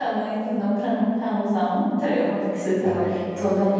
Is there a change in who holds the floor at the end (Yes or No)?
No